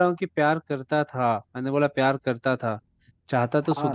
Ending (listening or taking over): listening